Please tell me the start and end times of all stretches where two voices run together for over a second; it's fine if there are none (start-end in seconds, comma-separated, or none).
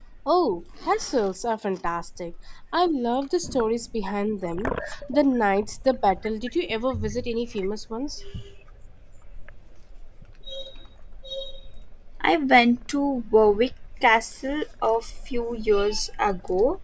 none